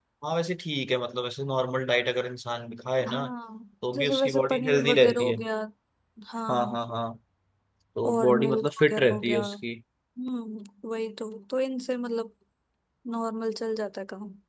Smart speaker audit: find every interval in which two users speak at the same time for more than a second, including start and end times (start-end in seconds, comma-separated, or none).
3.9-5.4, 8.0-9.4